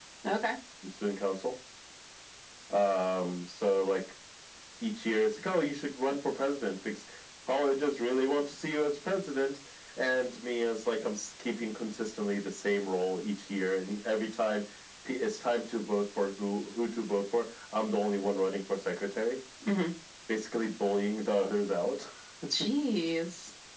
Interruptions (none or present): none